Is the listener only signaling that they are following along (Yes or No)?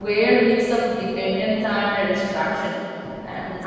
Yes